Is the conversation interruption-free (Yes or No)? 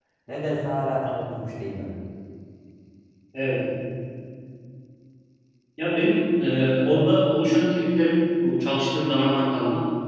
Yes